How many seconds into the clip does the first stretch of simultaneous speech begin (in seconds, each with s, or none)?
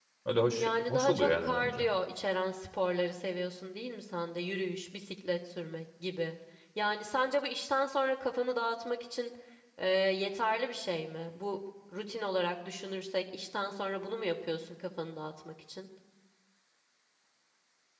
0.6 s